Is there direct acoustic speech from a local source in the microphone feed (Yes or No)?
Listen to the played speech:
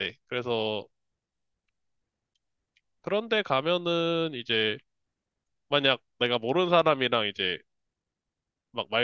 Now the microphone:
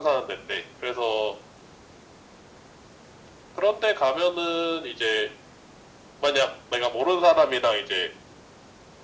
No